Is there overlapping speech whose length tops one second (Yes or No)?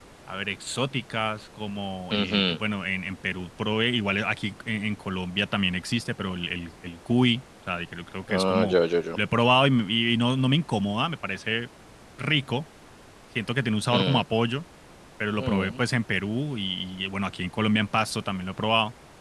No